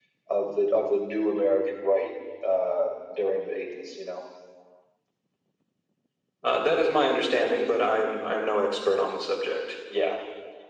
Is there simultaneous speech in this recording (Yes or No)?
No